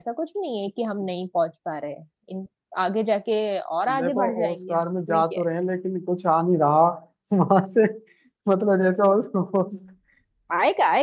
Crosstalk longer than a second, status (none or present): present